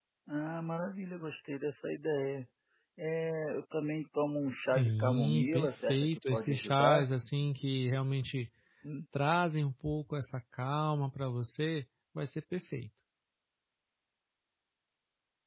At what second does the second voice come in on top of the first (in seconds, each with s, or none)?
4.6 s